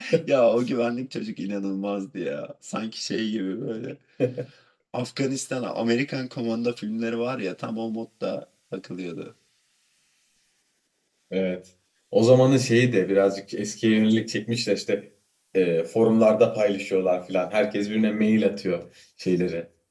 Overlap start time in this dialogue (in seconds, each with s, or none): none